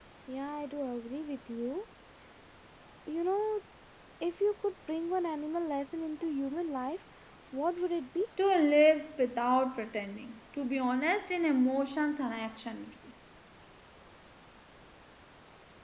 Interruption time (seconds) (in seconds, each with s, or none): none